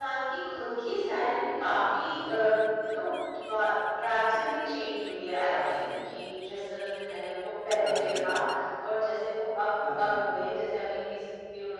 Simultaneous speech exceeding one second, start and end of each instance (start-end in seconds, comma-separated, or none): none